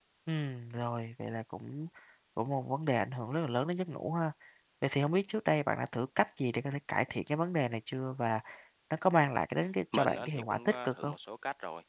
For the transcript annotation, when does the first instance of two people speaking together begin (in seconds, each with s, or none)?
9.9 s